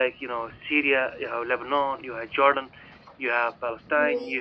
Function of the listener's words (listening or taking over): listening